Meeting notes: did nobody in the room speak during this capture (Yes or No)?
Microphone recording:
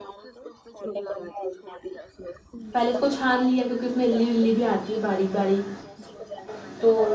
No